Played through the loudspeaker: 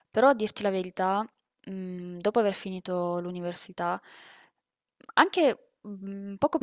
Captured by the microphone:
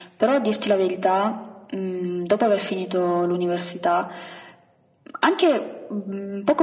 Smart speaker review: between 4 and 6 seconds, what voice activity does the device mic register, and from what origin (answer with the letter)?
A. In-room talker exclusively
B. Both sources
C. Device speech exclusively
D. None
C